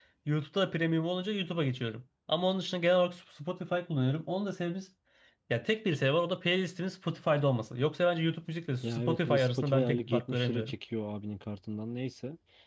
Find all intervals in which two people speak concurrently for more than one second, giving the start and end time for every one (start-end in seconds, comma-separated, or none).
8.8-10.7